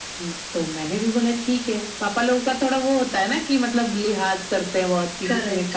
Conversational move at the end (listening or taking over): taking over